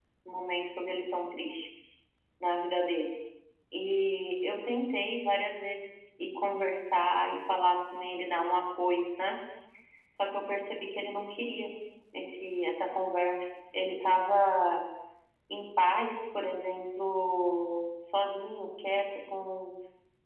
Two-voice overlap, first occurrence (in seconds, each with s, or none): none